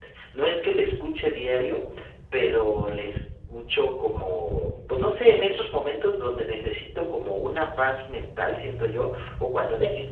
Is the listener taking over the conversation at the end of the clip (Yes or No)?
No